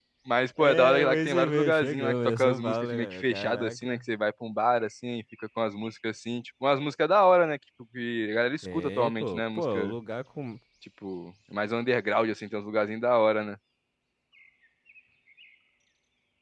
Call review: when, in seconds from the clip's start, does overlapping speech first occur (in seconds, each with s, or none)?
0.6 s